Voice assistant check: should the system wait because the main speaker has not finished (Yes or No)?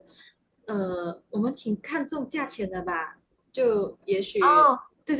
No